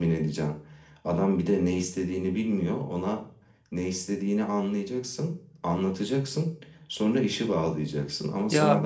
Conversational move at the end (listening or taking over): listening